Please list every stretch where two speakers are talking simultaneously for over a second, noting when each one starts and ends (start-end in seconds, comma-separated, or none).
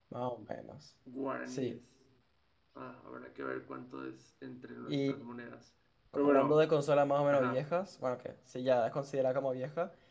none